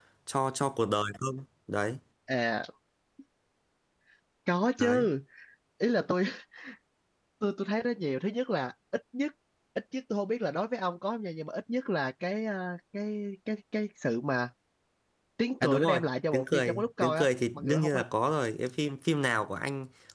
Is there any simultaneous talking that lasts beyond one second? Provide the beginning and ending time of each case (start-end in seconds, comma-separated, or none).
15.6-18.0